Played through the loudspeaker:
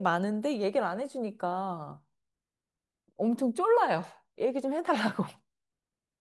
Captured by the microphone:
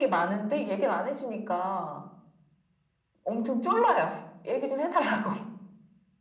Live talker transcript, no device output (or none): none